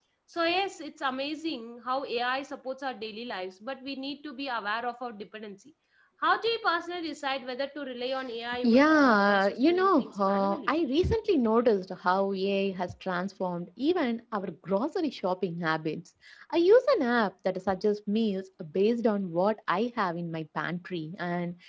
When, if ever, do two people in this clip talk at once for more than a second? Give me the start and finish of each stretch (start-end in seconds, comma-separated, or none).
8.6-10.8